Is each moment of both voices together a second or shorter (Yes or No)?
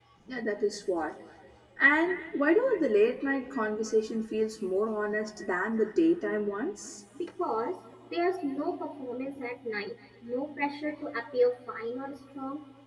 Yes